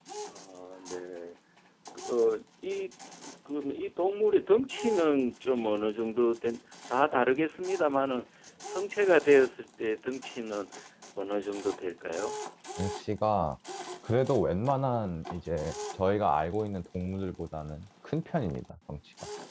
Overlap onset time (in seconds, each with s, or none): none